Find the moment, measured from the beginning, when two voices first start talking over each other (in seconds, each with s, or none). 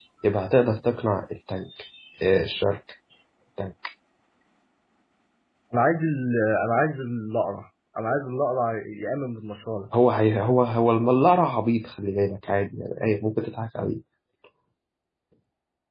none